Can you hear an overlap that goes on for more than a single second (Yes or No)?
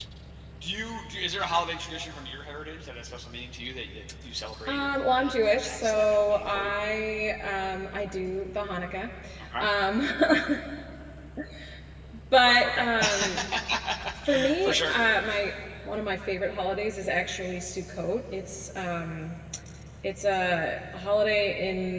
Yes